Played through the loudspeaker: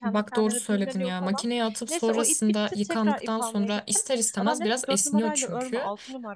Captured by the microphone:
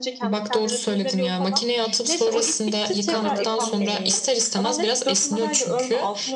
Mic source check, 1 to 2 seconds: echo only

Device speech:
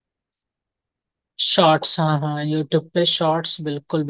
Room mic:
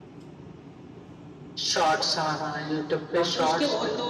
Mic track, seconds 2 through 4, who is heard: both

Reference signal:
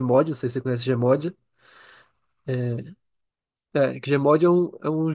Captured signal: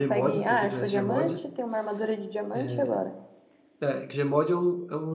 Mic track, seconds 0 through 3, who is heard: both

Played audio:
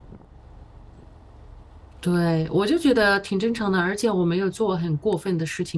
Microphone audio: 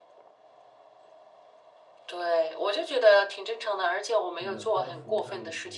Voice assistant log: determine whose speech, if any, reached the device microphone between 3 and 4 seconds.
echo only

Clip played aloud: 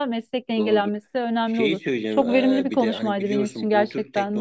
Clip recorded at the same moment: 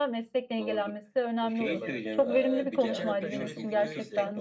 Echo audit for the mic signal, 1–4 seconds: both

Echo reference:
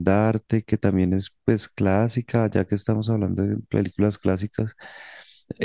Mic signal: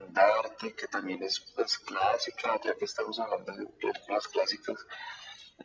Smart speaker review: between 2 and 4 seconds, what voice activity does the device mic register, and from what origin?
echo only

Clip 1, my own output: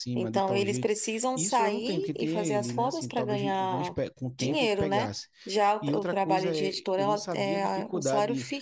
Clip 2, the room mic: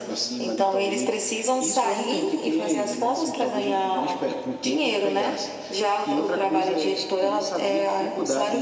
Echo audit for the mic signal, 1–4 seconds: echo only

